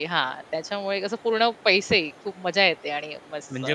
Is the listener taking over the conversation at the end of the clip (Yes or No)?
No